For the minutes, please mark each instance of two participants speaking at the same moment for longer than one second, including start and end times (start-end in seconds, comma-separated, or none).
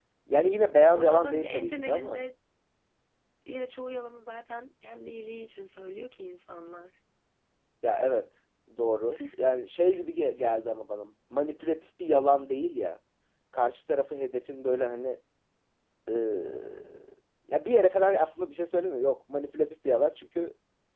0.9-2.2